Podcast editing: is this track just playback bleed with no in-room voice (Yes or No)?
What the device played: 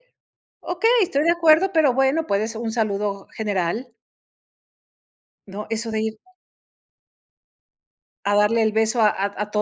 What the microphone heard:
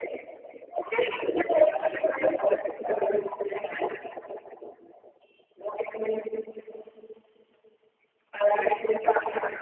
No